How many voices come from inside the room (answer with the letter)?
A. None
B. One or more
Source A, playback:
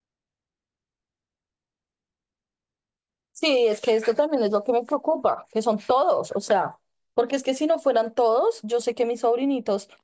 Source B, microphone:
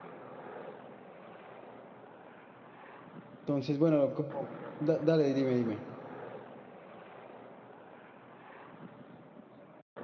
B